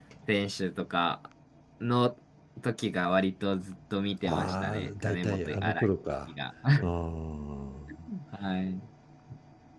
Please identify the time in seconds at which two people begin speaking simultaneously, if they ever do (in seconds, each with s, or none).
4.2 s